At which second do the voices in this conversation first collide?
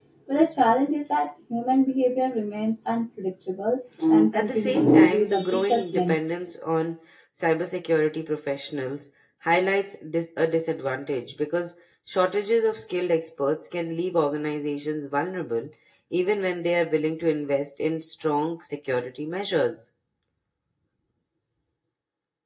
4.3 s

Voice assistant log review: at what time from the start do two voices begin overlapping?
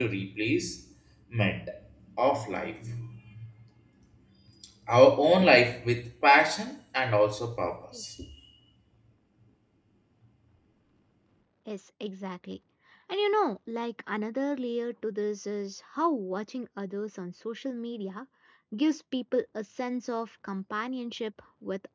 none

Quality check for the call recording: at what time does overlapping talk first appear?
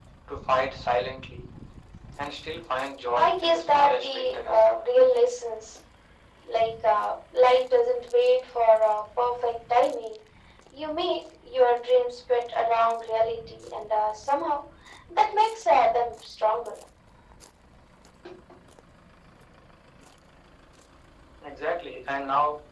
3.1 s

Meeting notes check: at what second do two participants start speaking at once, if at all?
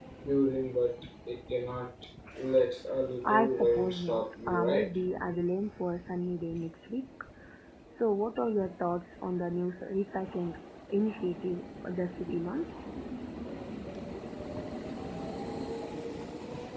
3.2 s

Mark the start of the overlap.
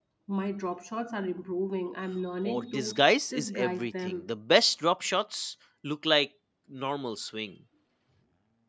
2.4 s

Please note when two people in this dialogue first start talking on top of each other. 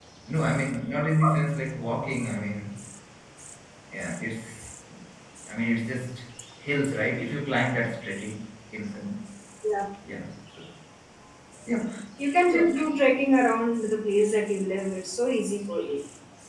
none

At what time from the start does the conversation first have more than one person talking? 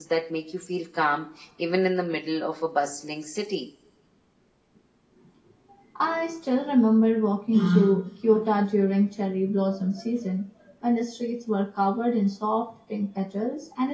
none

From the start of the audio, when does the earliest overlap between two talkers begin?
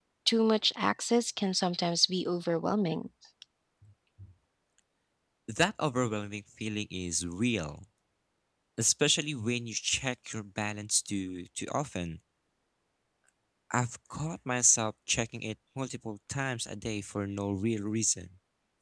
none

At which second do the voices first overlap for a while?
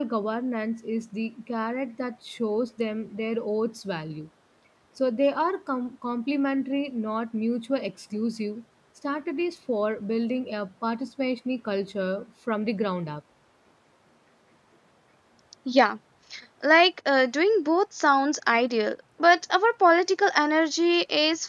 none

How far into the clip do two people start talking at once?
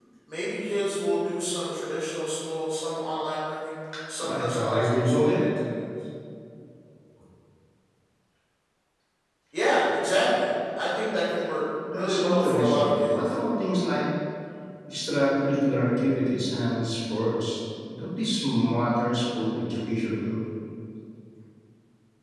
4.2 s

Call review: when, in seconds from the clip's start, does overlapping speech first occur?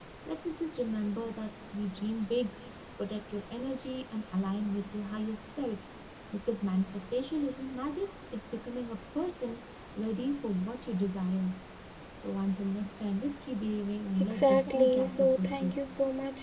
14.3 s

